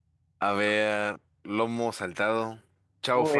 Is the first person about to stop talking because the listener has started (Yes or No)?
Yes